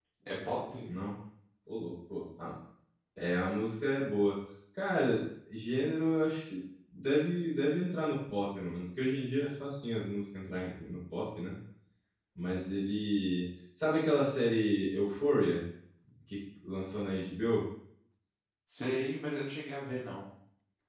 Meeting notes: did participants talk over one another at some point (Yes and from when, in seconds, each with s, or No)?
No